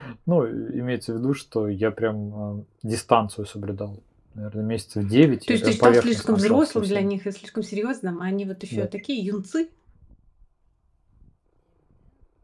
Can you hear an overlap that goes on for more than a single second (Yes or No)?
Yes